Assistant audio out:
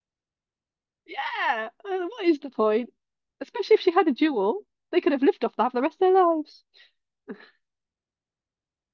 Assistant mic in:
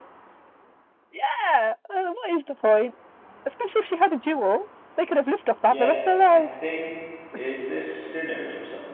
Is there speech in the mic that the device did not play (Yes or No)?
Yes